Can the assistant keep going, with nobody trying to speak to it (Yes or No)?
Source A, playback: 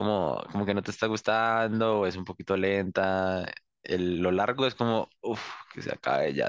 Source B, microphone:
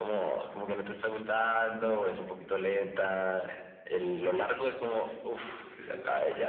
No